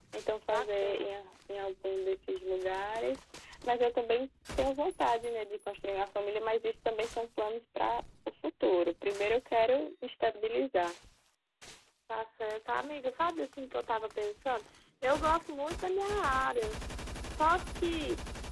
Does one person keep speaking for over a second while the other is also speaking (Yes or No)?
No